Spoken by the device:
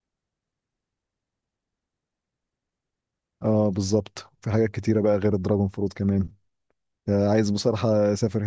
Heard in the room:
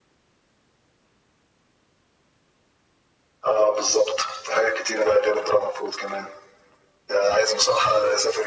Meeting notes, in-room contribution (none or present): none